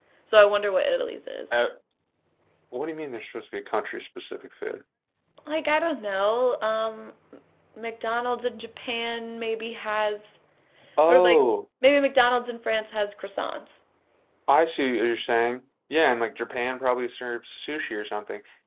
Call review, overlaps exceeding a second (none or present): none